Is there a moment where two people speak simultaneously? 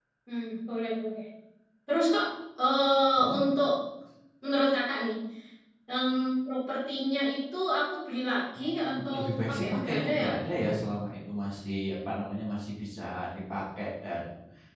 Yes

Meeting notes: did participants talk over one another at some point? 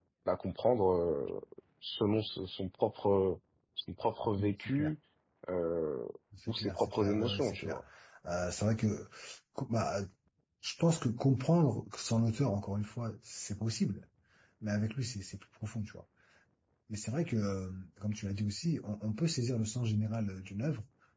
Yes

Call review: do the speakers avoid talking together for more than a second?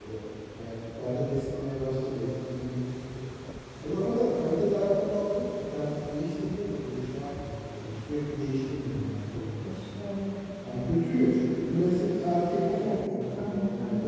No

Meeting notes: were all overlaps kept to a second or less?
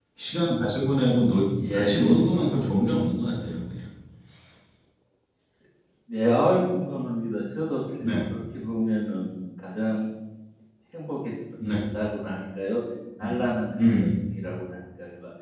No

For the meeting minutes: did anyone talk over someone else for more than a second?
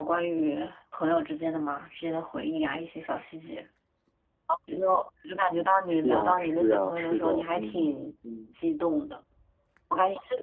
Yes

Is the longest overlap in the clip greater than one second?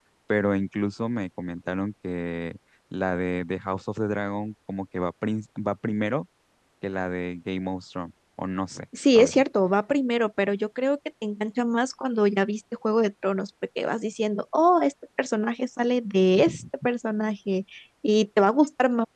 No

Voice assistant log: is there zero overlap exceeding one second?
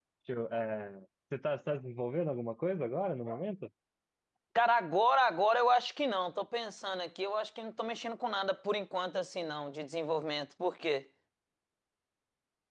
Yes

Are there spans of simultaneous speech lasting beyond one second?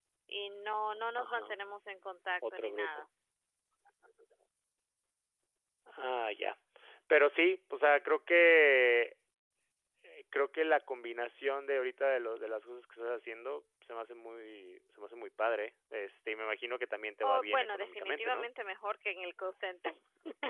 Yes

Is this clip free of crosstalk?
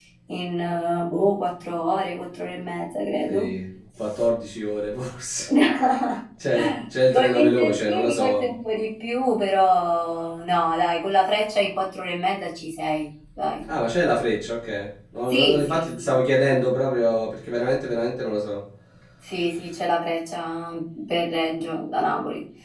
No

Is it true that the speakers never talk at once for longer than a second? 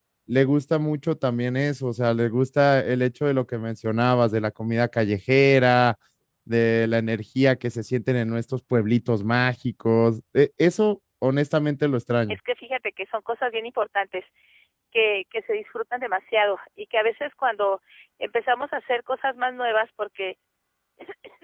Yes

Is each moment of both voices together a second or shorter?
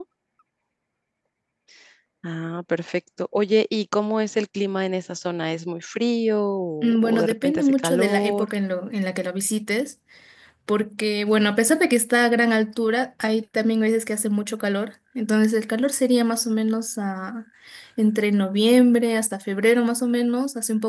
No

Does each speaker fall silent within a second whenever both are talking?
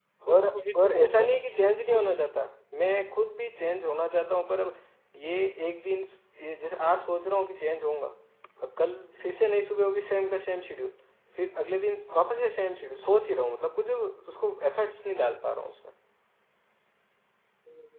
No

